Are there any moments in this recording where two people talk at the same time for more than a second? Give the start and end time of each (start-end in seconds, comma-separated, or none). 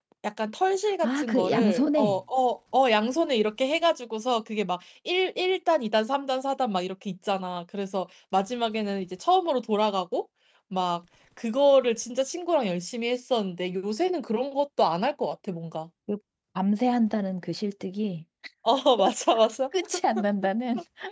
1.0-2.2